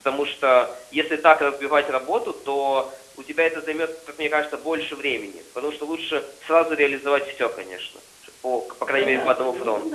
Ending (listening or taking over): taking over